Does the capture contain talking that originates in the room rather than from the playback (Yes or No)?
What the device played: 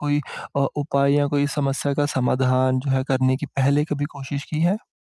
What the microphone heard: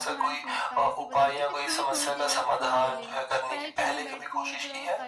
Yes